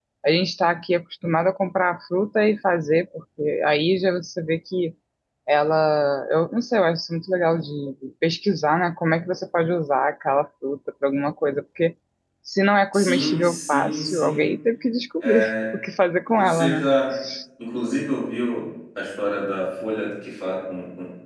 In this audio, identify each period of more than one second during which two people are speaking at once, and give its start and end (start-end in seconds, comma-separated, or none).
12.9-14.5